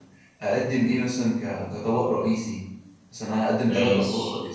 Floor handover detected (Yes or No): Yes